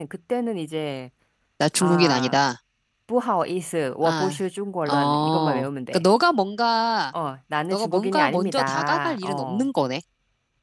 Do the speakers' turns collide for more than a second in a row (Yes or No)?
Yes